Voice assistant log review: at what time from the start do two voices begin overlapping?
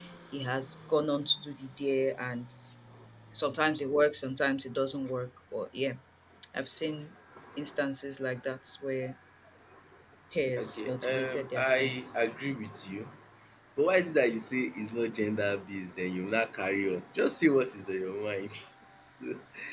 10.6 s

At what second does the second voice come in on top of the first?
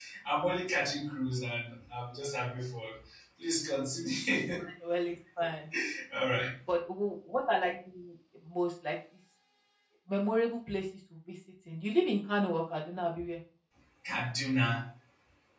none

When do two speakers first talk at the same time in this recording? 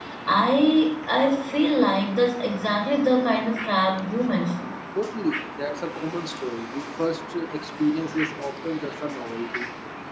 none

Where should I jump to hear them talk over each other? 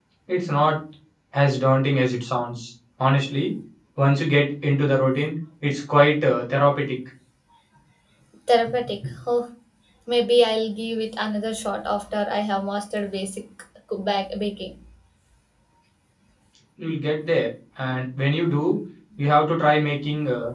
none

